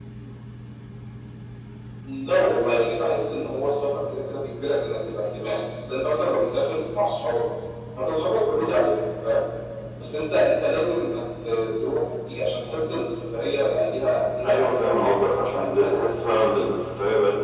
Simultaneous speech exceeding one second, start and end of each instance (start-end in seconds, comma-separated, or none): 14.4-16.0